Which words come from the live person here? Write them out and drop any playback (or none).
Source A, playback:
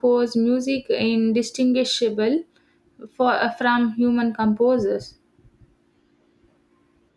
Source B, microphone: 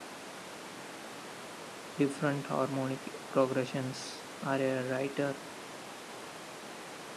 different harmonic progressions, or a writer